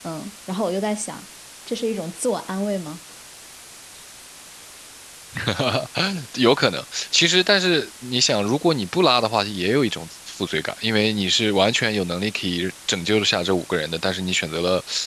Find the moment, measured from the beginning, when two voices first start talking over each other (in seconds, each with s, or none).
none